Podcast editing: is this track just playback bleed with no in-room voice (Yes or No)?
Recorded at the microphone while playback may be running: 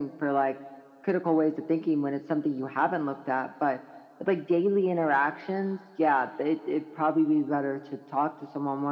Yes